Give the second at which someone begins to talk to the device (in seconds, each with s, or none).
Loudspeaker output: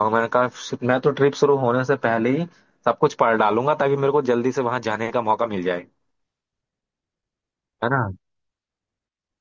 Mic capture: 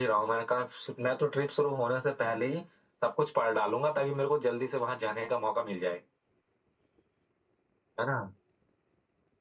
none